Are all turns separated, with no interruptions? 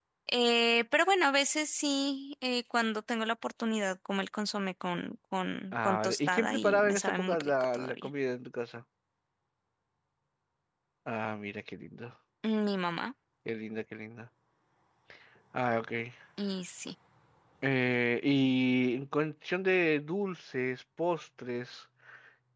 No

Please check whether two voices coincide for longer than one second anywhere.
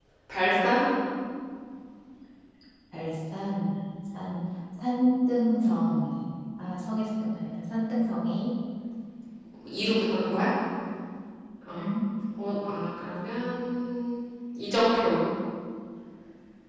No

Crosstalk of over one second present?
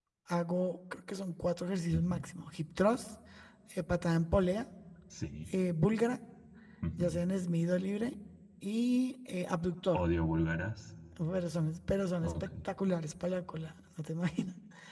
No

